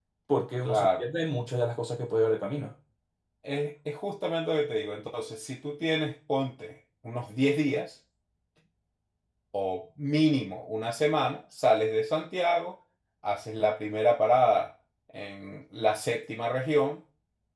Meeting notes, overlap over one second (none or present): none